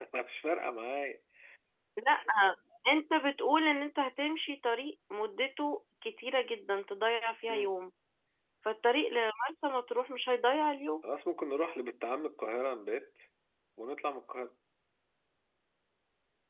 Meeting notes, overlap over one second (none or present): none